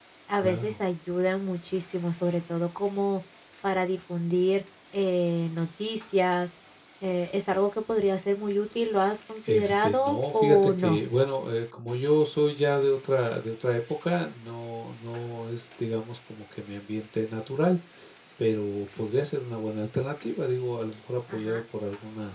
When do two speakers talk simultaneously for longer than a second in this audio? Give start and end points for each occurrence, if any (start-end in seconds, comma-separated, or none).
9.4-11.0